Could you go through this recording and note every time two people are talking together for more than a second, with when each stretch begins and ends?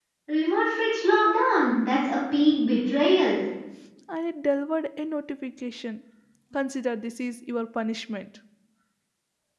none

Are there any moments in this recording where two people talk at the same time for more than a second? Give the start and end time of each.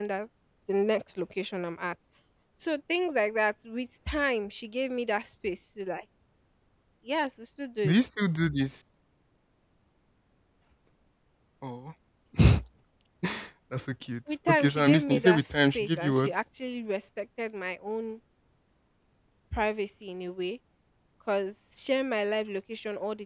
14.3-16.3

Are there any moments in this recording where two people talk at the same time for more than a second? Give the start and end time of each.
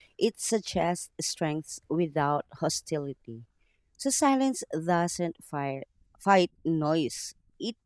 none

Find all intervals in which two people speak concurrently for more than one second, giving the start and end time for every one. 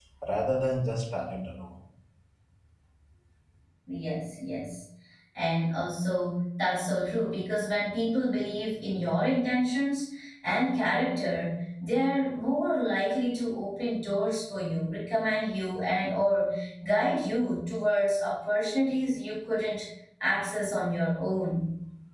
none

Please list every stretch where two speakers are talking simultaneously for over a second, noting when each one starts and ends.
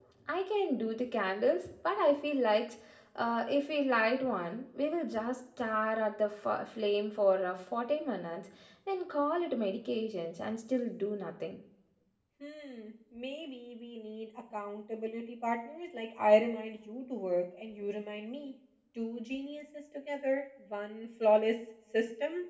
none

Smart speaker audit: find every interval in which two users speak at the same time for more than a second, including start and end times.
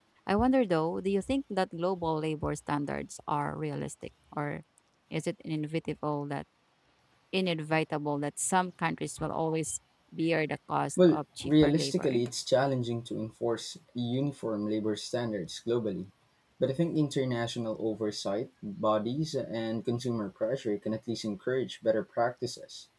11.0-12.2

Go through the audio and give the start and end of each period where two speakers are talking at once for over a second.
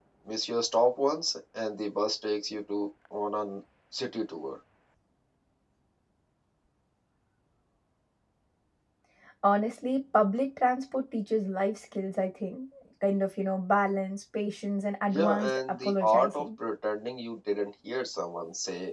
15.1-16.4

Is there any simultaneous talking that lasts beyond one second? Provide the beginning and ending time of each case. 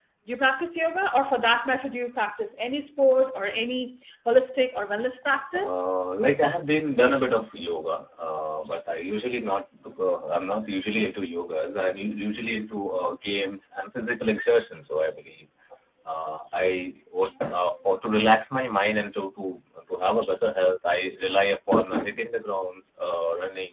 none

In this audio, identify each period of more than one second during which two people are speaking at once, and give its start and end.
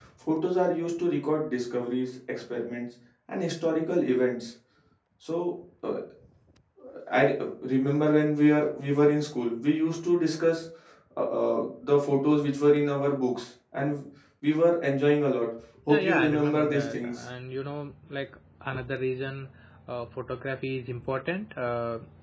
15.9-17.2

